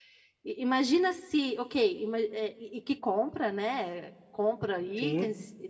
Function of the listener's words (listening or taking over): listening